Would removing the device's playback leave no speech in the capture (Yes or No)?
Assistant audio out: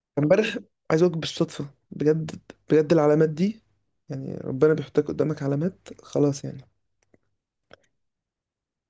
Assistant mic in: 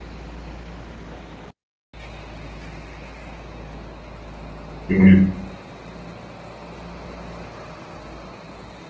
No